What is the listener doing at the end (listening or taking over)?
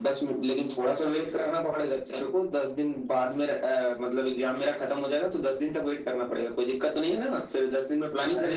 taking over